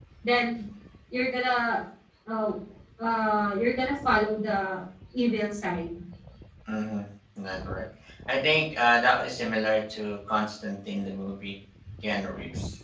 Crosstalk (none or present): none